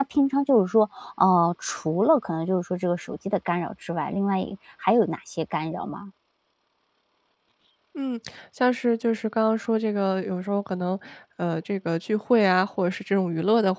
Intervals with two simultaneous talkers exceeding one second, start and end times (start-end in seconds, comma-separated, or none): none